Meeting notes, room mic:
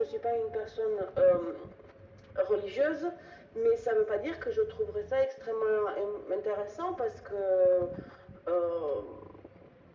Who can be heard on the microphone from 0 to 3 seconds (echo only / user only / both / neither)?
echo only